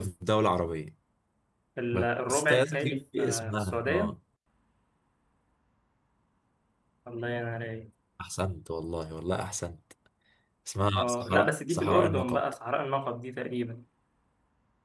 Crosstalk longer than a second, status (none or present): present